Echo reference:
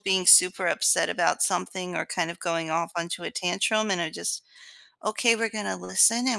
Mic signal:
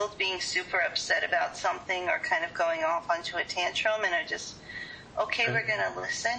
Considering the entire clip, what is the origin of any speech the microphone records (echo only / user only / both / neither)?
both